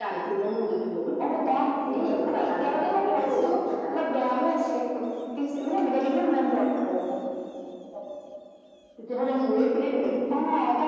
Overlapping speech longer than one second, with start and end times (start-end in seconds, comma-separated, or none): 1.9-3.3